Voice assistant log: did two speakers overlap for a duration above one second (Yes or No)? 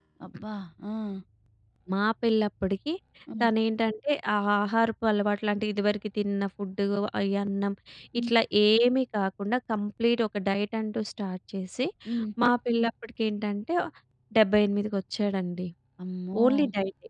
No